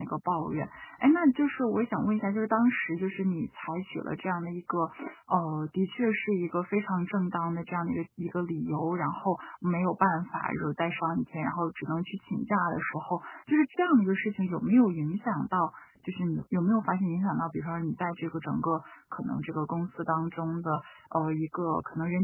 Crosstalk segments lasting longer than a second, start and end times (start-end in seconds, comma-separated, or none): none